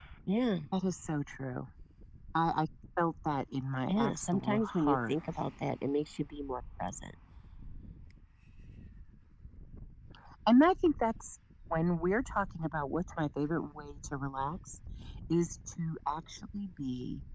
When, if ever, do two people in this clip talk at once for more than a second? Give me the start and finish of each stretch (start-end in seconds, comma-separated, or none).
3.9-5.2